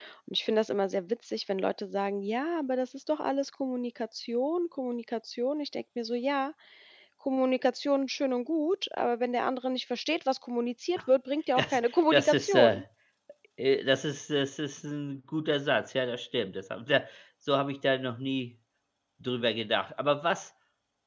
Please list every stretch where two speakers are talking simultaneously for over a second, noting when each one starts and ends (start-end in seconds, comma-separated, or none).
11.6-12.8